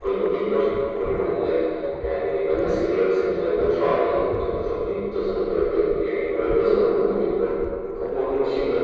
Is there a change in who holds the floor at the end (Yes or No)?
No